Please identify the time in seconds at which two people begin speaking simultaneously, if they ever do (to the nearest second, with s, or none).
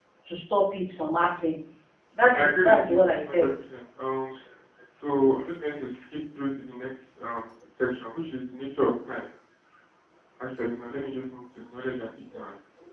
2 s